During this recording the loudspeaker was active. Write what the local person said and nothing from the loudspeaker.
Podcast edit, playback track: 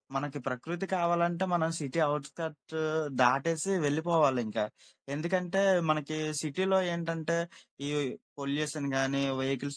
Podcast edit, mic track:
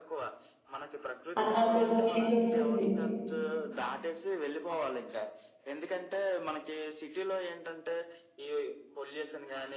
అన్న ఒక ఫీలింగొస్తుంది.

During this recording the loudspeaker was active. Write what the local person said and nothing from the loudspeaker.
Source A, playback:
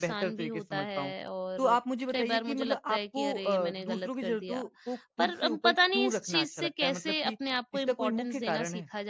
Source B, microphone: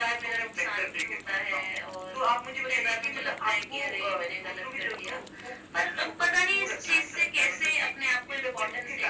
none

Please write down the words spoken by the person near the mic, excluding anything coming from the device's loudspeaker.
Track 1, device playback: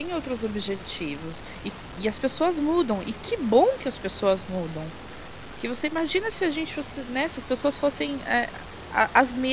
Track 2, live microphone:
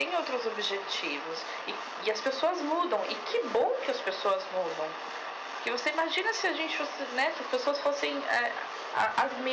none

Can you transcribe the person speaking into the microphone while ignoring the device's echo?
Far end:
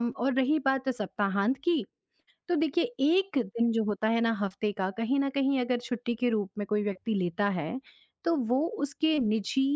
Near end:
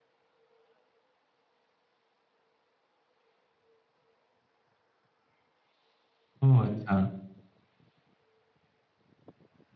ओह! अच्छा।

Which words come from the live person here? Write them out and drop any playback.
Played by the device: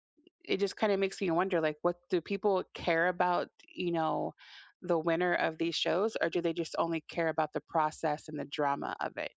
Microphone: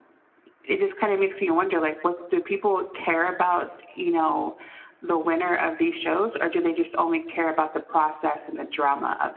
none

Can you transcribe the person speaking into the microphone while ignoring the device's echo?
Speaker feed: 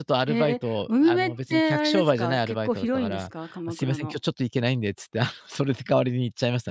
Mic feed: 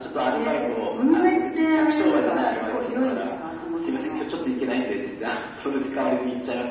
none

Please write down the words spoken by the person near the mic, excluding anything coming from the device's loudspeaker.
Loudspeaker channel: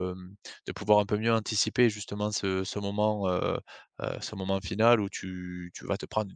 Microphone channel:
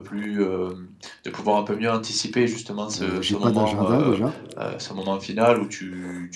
heu, j'ai pas d'agenda déjà.

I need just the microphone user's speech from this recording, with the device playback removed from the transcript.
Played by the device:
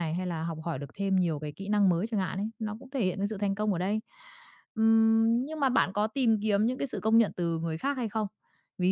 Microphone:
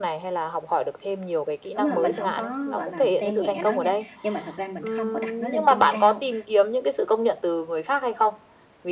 đúng là mình không có, gọi là, xem nhẹ nó nha, nhưng mà thật ra mình không có đặt nó lên trên cao.

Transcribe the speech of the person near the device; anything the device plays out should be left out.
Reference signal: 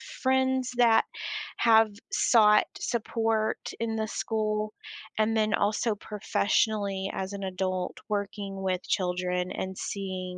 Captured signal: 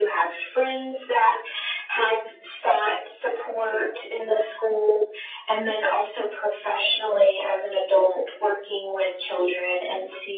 none

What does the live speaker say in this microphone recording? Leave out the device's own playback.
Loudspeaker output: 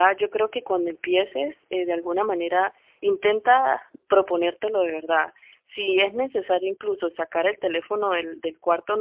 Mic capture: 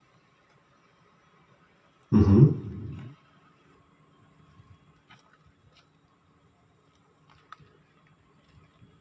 Ujú,

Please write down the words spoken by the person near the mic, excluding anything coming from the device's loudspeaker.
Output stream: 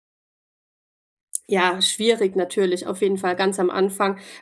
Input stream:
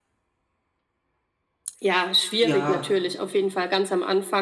ja,

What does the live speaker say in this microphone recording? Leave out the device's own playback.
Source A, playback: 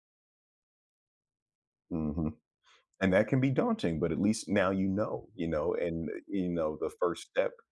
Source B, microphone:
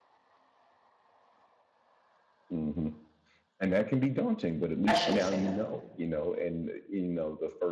I shouldn't say that.

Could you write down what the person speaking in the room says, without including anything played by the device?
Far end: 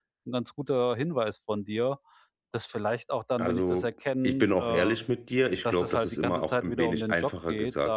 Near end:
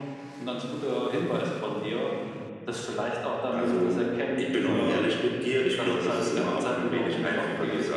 Mhm.

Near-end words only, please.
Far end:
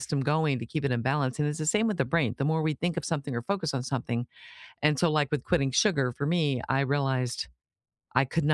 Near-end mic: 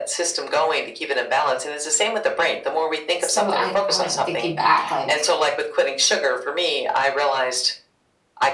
so I I don't know, thinking back, like

